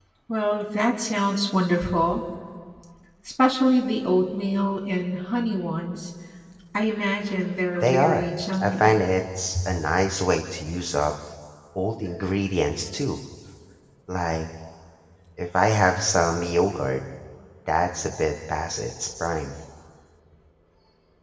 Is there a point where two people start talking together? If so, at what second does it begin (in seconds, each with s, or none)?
7.8 s